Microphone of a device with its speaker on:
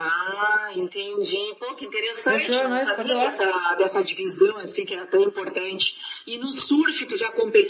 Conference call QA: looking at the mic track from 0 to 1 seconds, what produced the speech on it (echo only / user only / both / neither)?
echo only